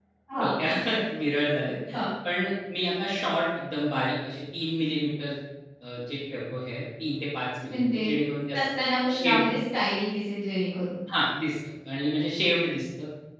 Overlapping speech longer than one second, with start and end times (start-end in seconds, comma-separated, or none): none